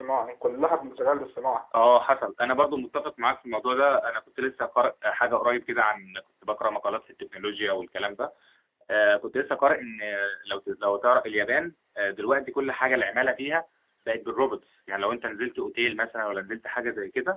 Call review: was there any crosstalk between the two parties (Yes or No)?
No